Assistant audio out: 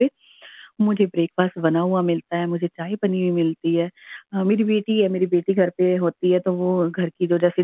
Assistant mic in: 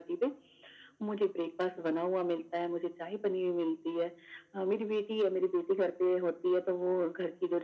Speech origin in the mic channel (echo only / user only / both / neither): echo only